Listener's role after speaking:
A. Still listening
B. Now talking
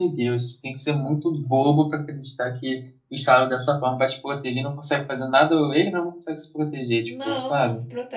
B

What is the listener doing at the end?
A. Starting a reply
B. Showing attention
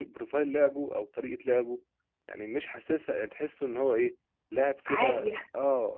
B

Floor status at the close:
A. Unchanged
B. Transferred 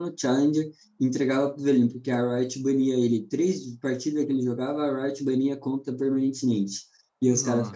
A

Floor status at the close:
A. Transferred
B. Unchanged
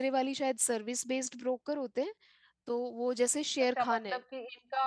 A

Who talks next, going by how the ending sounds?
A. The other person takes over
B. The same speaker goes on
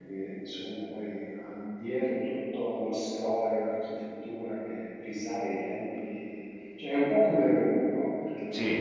B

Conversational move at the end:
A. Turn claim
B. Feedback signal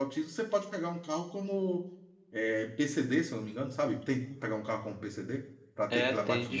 A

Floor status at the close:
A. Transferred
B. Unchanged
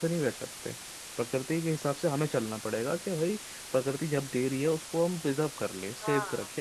B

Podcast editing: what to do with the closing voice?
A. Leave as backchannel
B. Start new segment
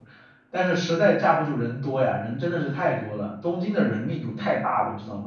B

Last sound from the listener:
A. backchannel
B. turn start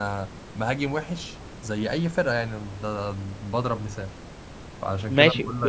B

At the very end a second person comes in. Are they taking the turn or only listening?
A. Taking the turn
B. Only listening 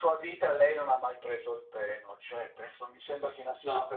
B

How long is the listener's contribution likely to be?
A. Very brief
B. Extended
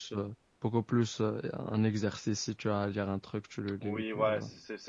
B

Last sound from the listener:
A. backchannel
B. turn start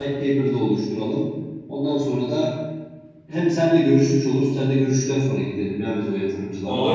B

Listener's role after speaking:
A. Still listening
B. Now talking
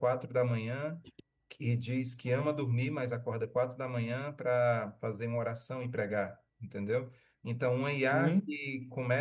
A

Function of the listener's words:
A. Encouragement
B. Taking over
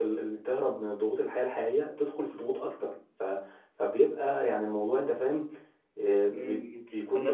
B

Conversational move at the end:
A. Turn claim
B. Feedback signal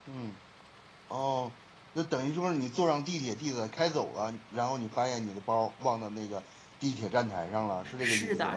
A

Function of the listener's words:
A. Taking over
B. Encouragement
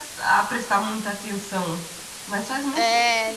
A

